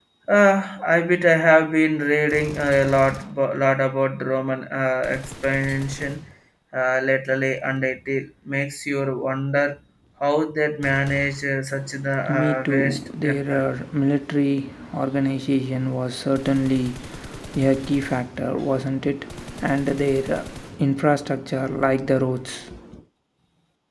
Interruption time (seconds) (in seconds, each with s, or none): 12.2 s